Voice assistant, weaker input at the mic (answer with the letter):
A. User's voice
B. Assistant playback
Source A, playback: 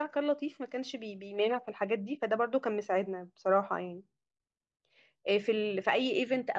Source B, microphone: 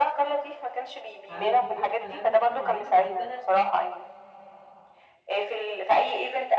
A